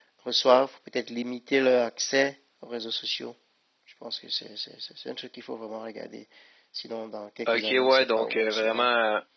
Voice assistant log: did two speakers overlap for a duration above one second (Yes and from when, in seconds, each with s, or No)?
Yes, from 7.5 s